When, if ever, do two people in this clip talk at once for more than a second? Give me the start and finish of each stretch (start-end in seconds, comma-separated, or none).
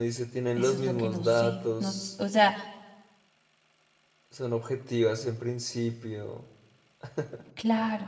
0.6-2.1